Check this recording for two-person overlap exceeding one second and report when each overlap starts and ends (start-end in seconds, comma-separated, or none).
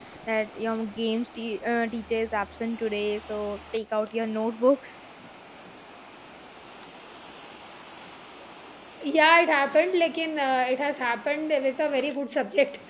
none